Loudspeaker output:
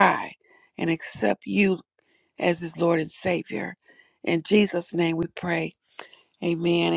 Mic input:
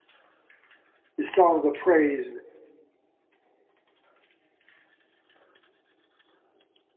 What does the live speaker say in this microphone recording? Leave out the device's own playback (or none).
this song of praise